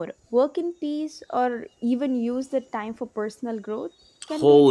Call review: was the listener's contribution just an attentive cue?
No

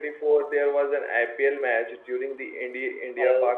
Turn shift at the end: Yes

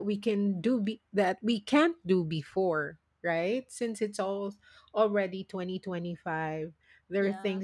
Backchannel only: Yes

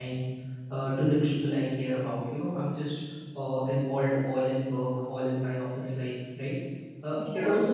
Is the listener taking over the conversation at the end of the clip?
No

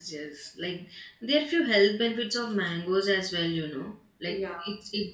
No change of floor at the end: Yes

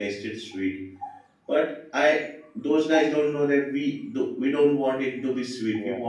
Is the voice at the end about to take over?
No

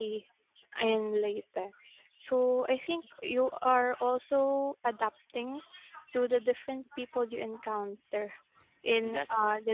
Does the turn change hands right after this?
No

